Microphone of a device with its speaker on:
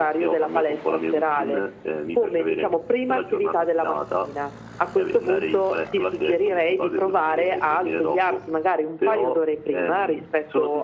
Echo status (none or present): present